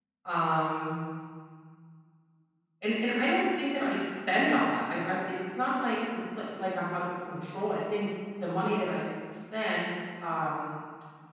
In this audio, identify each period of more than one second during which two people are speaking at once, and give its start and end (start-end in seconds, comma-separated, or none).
none